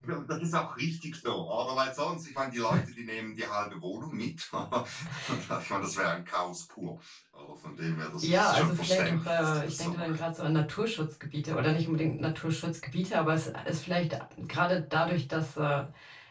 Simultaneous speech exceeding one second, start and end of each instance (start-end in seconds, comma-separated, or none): 8.2-10.2